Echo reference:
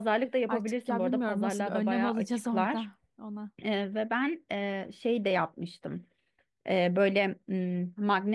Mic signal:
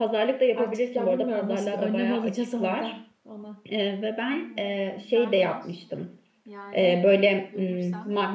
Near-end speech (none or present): present